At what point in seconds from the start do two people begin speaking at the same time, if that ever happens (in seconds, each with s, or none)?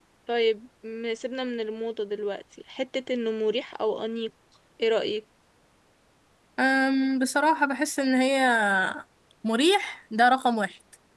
none